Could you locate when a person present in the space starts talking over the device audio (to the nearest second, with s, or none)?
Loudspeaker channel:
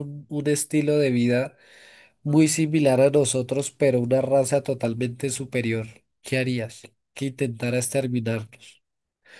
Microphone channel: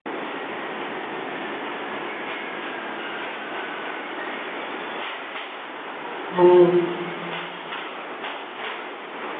6 s